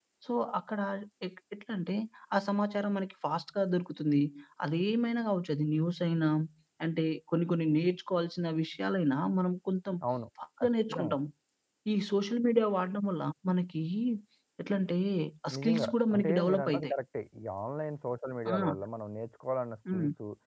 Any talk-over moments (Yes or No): Yes